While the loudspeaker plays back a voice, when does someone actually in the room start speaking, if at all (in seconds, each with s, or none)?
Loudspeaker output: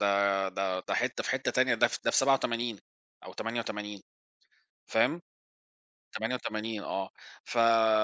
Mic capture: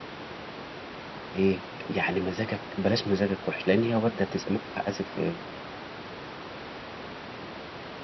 1.3 s